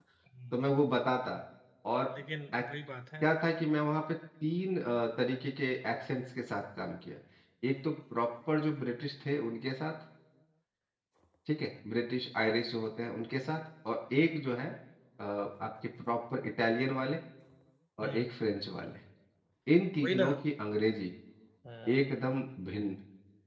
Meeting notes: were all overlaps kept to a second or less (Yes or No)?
Yes